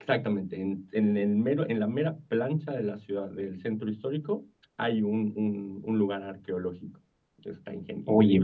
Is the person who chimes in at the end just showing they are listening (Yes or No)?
No